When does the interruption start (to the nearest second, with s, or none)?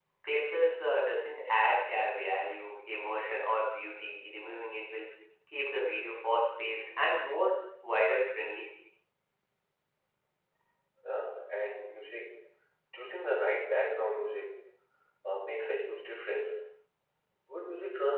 none